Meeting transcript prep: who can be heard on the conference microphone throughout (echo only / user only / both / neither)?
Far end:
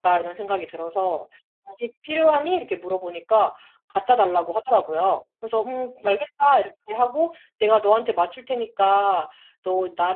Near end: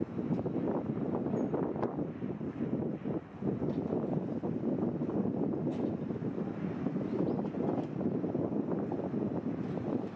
neither